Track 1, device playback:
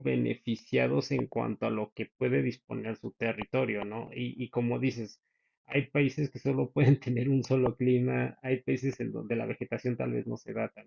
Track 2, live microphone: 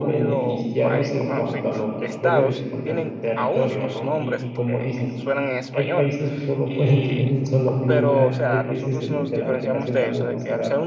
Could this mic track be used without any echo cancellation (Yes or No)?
No